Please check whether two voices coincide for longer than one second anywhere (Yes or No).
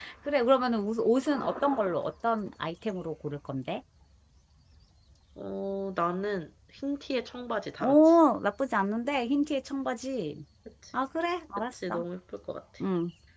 No